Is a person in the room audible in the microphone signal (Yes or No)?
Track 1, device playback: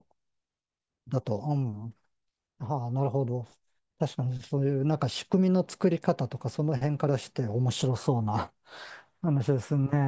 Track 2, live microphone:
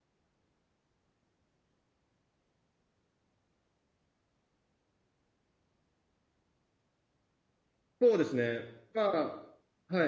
Yes